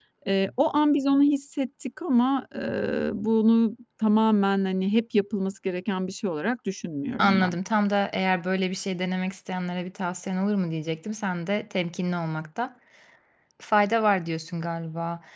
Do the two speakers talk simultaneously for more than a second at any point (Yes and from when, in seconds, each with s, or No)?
No